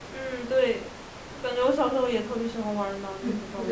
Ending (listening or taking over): taking over